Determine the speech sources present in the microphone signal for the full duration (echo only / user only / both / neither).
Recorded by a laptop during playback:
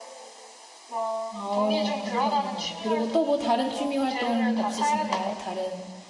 both